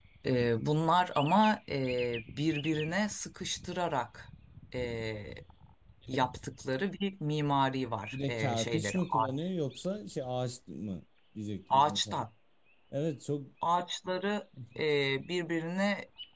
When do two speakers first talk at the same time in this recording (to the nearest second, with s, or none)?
8 s